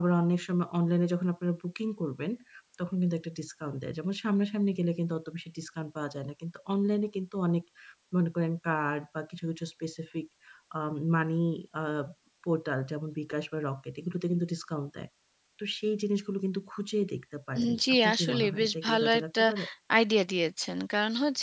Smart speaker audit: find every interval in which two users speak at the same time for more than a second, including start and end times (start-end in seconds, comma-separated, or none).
17.6-19.4